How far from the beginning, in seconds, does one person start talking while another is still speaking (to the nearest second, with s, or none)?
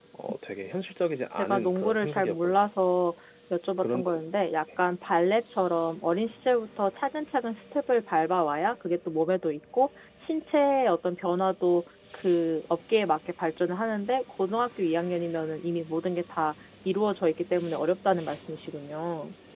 1 s